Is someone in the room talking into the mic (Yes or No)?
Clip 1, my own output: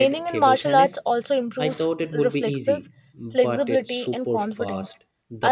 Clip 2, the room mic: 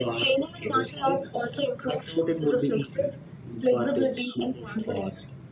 No